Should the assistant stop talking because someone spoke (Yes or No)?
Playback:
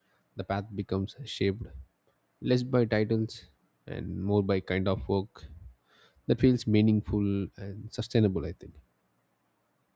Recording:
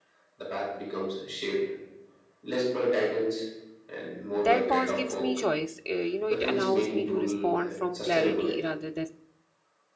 Yes